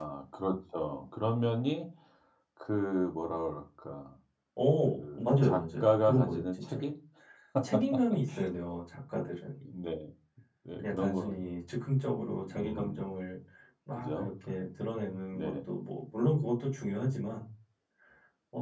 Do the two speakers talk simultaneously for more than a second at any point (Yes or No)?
Yes